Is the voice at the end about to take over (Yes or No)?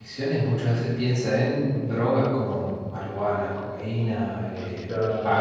No